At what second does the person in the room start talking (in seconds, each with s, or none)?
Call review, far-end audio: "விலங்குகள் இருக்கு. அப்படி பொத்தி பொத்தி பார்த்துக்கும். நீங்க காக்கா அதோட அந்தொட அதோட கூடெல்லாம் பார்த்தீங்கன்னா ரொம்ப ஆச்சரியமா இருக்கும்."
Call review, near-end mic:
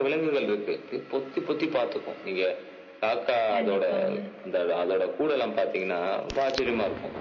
3.5 s